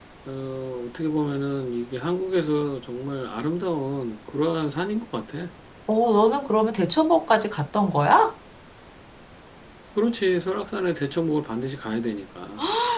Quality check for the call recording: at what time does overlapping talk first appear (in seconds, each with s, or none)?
none